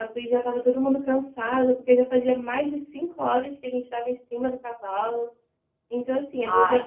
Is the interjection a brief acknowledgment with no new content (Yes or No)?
No